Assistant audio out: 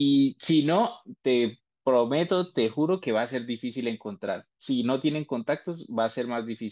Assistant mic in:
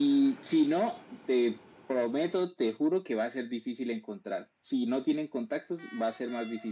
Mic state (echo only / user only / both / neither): echo only